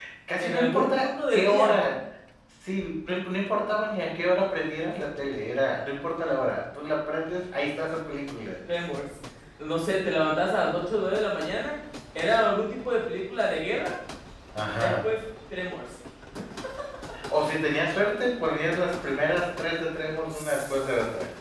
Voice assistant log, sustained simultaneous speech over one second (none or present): present